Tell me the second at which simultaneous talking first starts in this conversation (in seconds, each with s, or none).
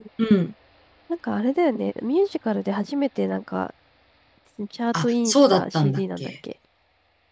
5.0 s